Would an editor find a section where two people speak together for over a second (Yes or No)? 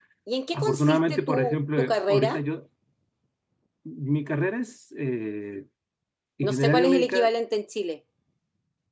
Yes